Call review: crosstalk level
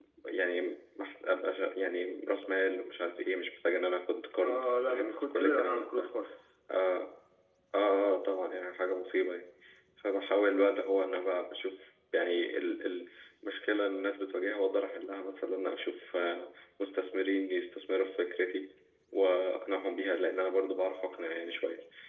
present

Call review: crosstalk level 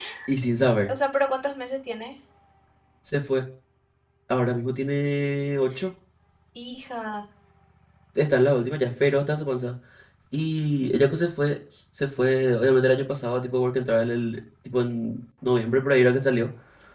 none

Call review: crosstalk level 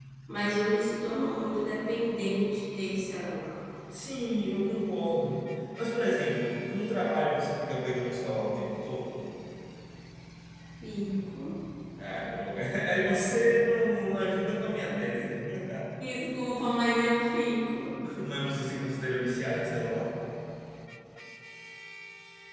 none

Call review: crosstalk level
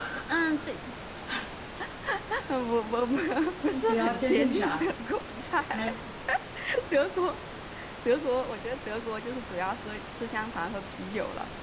present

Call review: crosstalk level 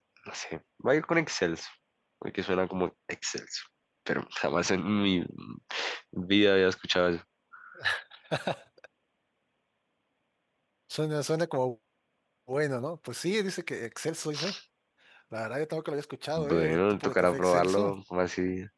present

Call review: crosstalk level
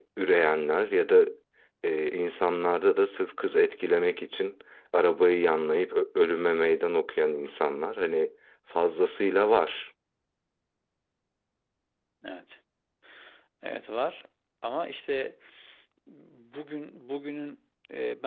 none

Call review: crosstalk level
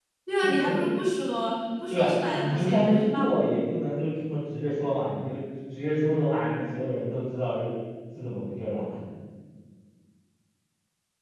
present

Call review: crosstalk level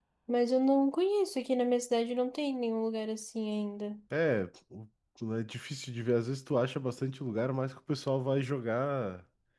none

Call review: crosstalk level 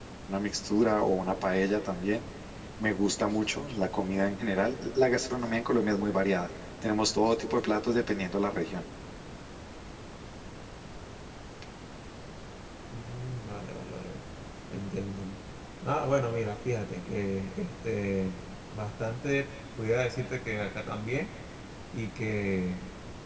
none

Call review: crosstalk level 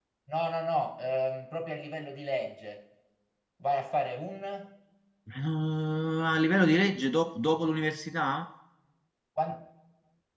none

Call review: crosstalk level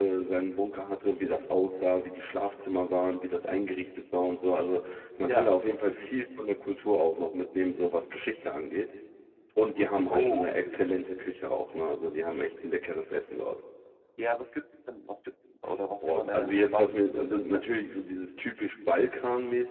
present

